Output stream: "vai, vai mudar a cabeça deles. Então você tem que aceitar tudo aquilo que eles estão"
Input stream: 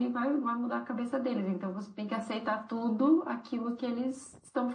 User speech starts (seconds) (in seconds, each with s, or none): none